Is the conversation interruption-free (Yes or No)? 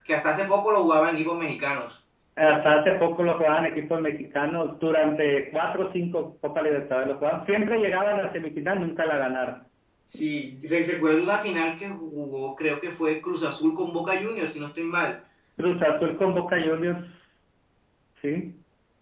Yes